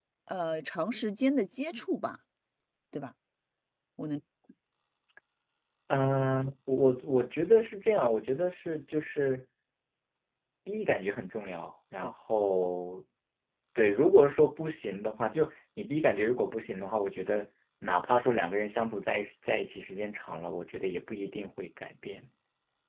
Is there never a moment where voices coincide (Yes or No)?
Yes